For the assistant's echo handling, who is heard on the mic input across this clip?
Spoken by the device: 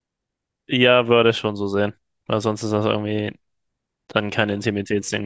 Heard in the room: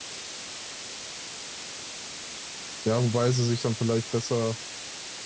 user only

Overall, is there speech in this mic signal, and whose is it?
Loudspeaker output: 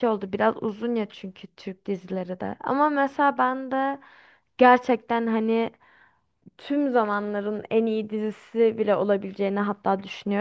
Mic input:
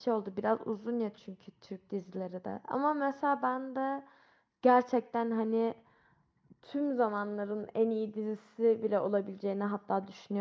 echo only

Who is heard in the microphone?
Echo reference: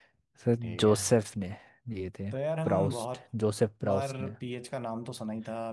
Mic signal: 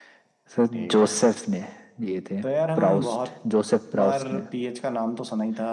echo only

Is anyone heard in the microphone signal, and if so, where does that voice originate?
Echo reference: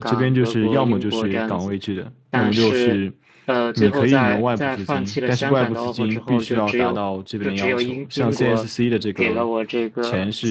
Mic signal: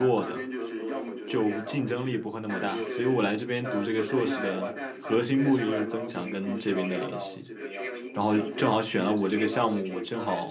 both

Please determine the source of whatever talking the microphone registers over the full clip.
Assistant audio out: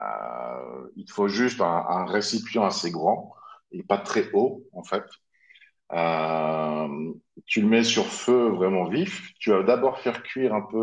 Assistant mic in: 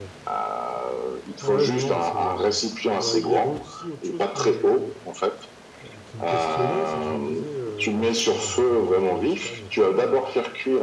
both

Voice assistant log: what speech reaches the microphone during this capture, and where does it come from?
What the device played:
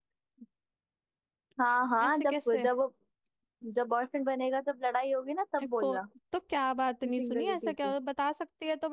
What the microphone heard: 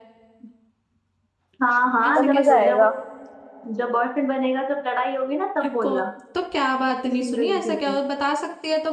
both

